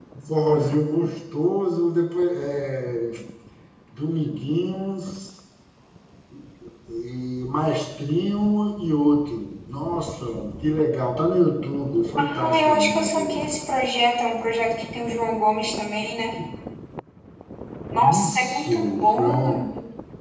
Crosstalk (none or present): present